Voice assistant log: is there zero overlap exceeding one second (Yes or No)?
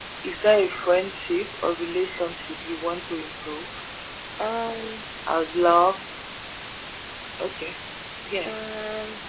Yes